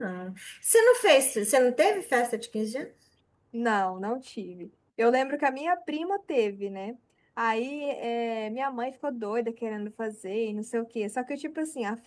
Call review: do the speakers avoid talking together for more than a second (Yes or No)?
Yes